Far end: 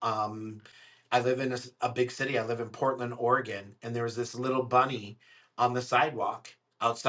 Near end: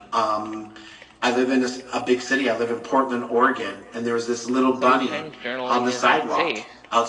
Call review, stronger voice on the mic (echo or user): echo